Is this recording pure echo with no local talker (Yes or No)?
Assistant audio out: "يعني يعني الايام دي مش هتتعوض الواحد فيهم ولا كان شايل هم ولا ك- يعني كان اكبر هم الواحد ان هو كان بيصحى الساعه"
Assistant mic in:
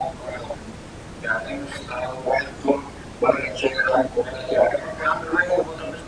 Yes